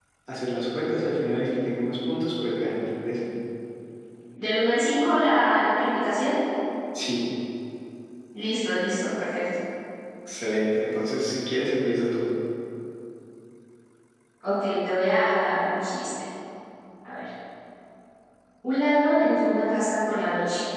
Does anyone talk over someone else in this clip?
No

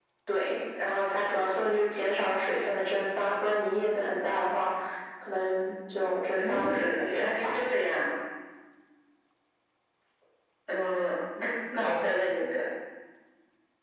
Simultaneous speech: Yes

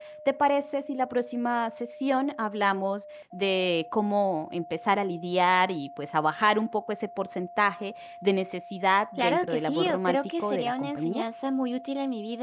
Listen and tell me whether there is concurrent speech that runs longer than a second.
Yes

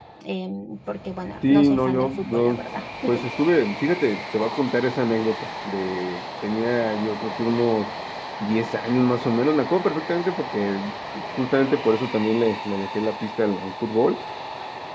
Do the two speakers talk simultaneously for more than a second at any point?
Yes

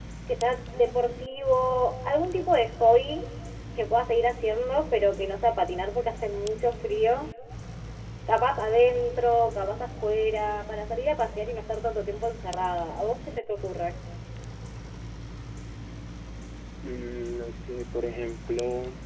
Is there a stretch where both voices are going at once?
No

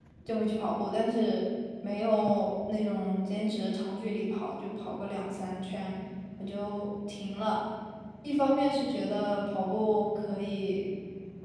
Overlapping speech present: No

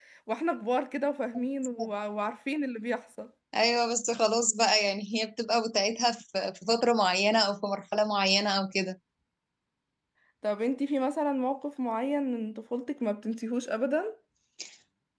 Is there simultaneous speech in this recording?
No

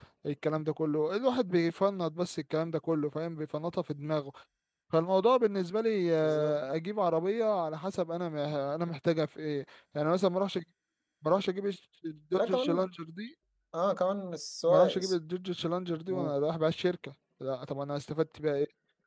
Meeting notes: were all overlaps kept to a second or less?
Yes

